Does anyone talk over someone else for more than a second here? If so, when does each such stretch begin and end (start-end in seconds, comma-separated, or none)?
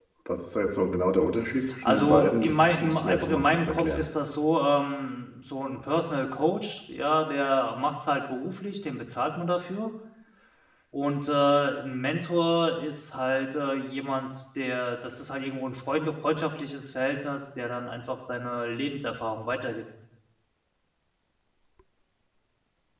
1.8-4.1